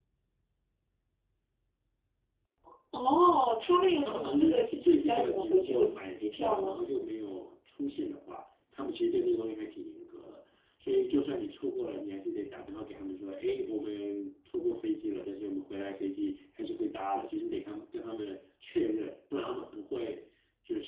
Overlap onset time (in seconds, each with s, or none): 4.0 s